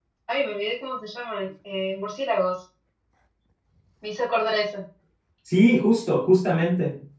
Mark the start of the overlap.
none

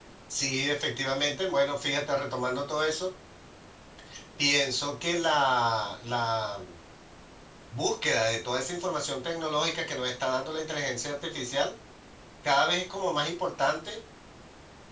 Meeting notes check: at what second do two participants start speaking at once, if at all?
none

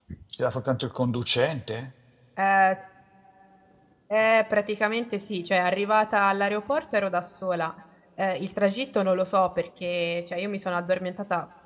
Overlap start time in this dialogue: none

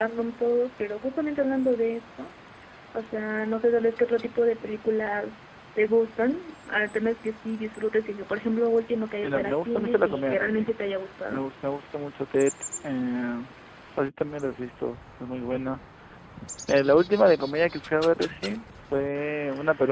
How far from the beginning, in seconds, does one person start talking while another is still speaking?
9.2 s

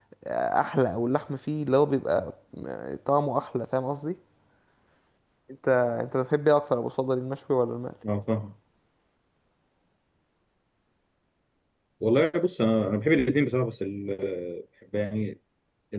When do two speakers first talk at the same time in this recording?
none

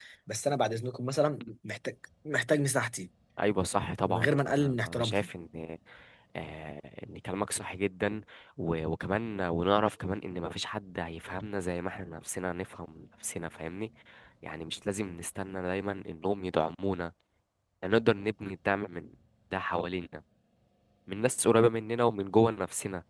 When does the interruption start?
4.1 s

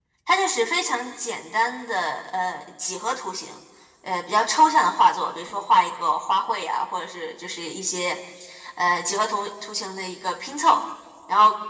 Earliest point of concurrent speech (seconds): none

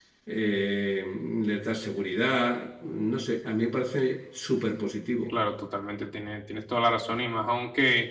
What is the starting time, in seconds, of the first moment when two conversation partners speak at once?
none

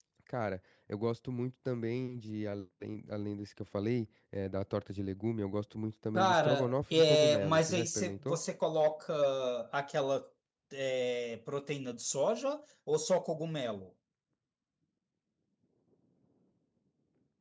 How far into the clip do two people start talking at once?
6.2 s

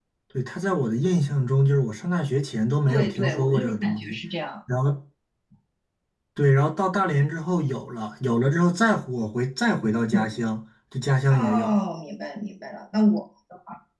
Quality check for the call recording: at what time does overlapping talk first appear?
2.9 s

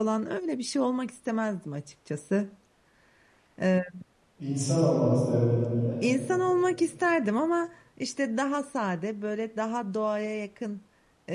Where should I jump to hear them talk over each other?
none

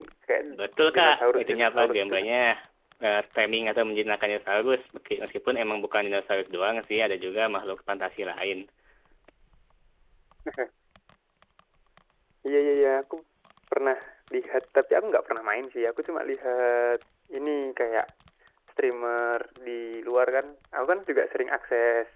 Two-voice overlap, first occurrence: 0.9 s

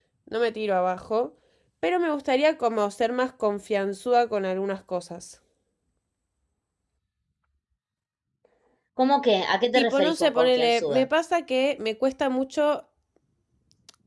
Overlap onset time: 9.8 s

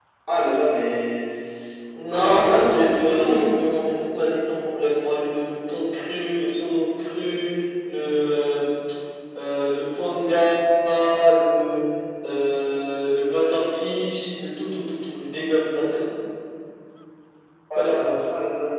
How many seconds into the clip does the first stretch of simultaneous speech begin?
2.1 s

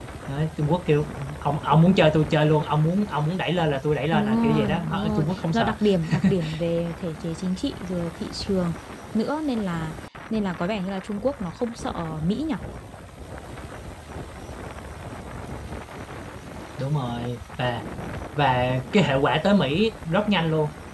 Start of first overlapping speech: 4.1 s

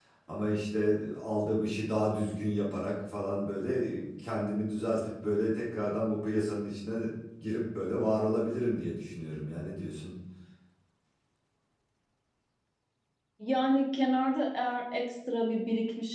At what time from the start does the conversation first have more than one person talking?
none

